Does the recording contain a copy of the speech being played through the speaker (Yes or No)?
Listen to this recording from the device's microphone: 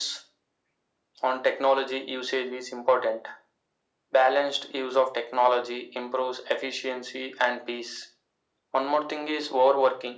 Yes